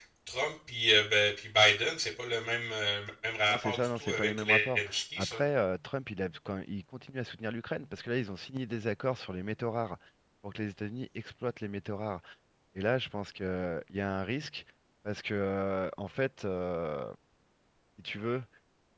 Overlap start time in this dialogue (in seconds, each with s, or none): 3.5 s